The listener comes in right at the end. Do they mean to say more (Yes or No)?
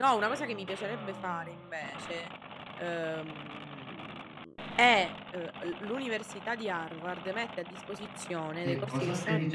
Yes